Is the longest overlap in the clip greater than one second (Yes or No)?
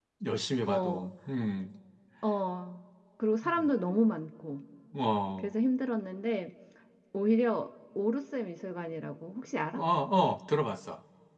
No